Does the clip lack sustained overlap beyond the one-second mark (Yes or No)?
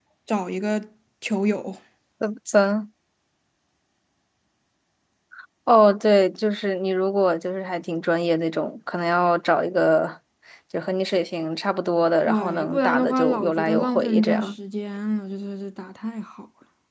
No